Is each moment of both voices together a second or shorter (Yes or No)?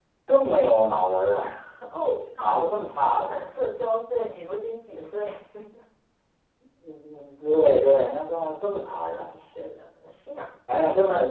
Yes